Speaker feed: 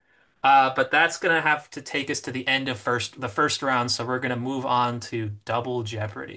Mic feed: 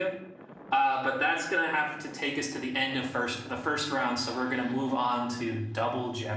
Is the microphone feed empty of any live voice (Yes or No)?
Yes